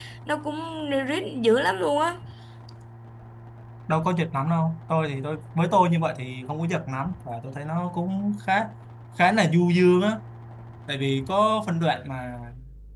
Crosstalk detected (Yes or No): No